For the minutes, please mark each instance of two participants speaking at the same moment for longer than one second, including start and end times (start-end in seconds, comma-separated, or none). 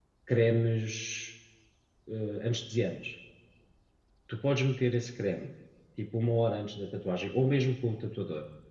none